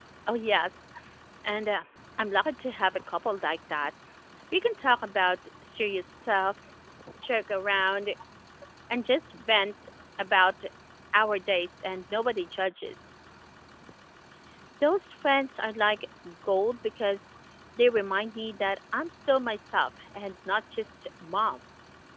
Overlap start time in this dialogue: none

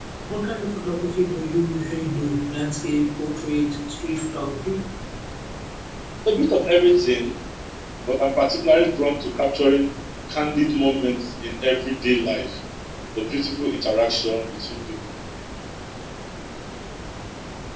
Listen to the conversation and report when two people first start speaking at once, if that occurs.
none

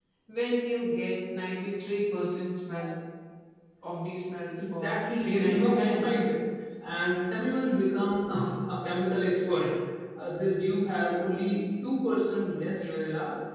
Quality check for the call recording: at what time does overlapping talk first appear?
4.6 s

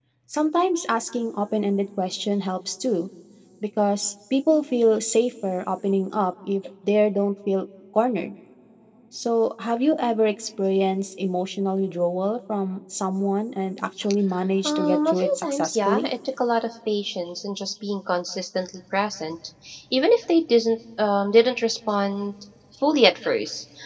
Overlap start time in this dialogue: 14.6 s

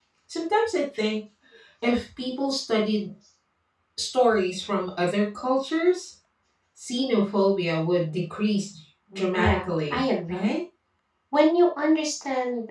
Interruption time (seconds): 9.1 s

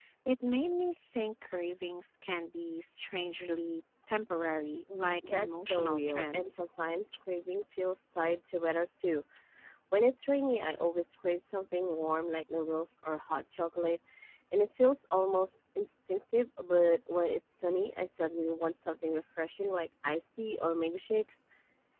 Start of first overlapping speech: 5.2 s

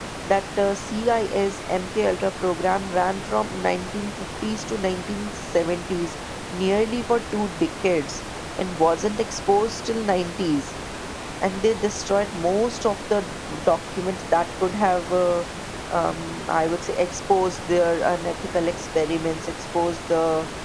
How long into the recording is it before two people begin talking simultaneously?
none

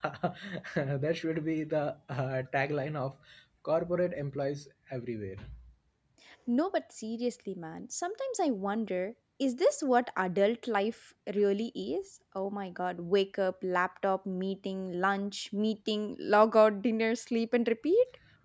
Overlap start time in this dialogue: none

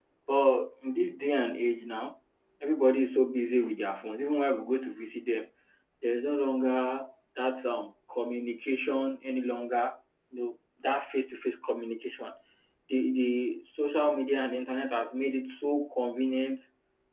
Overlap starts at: none

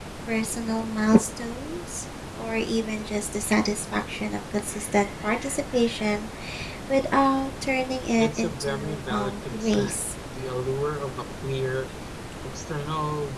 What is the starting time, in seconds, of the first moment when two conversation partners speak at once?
8.2 s

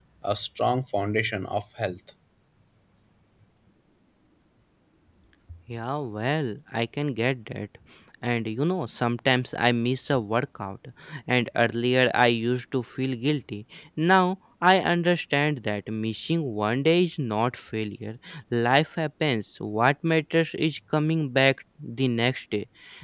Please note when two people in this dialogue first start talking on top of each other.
none

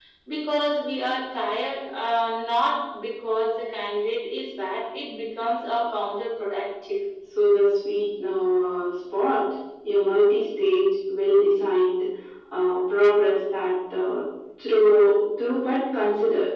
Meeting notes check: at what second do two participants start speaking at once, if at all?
none

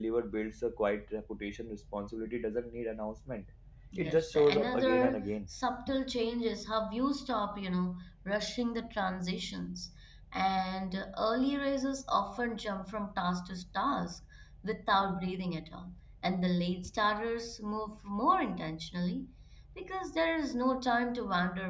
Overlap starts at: 4.0 s

